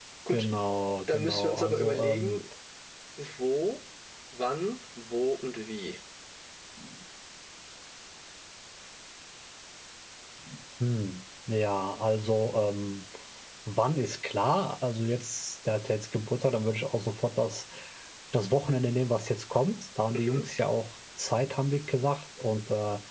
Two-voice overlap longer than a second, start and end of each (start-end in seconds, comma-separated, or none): 1.1-2.4